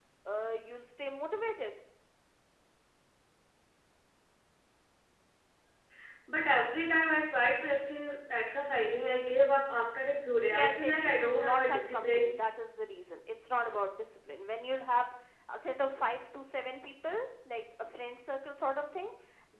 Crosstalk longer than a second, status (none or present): present